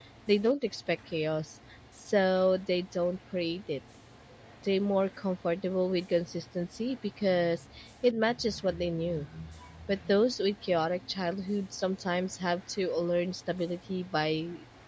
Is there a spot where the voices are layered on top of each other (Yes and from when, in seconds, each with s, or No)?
No